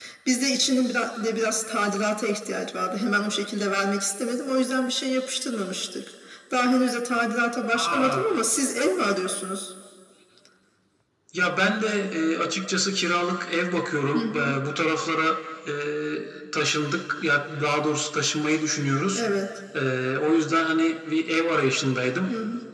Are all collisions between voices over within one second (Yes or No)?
Yes